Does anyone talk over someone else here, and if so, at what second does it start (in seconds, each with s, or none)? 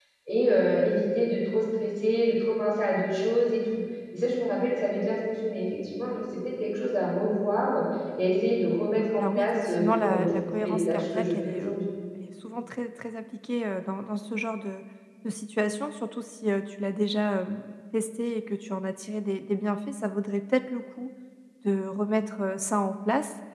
9.2 s